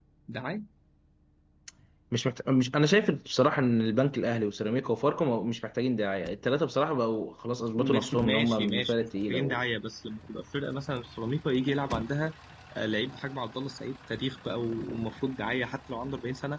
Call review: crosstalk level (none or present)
present